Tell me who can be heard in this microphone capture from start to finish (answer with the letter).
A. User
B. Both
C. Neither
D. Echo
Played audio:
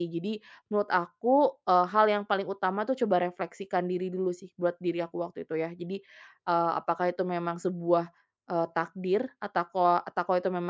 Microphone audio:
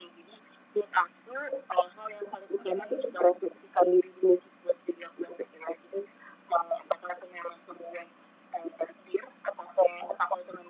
B